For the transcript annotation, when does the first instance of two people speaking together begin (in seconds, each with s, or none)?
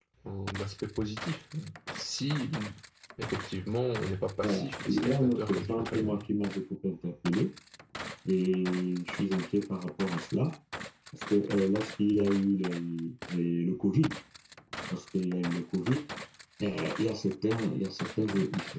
4.4 s